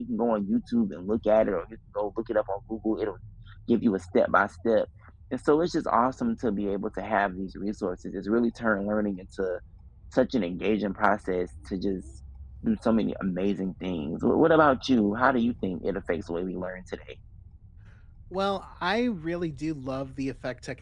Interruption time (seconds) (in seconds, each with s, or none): none